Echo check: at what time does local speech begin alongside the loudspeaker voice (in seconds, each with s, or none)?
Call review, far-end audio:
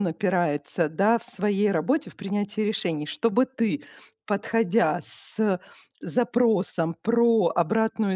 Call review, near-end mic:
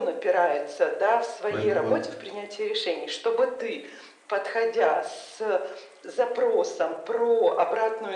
1.5 s